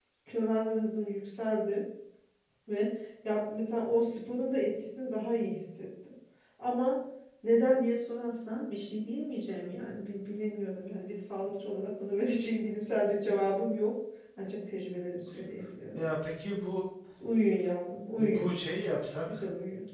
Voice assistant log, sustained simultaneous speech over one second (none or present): none